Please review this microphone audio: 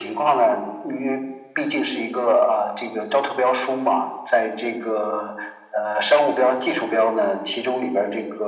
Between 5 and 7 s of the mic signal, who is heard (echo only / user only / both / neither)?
echo only